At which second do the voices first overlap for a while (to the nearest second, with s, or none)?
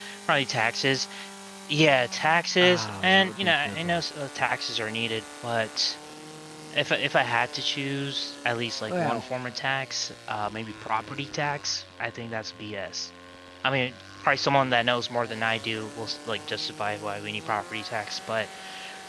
3 s